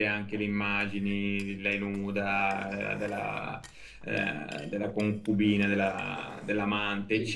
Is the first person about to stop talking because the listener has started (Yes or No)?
No